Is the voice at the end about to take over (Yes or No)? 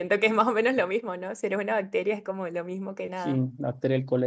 Yes